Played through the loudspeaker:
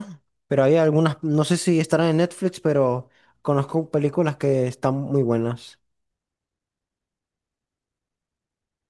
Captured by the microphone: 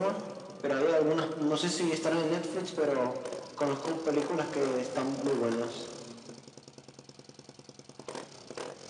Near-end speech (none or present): none